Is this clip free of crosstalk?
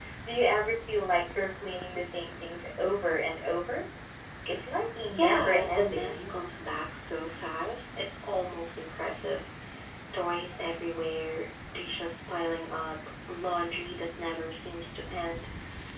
No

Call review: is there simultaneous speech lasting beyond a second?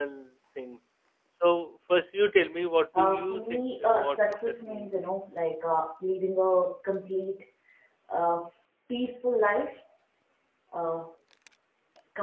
Yes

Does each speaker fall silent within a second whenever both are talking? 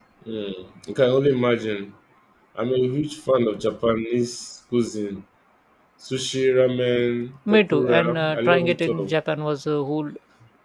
No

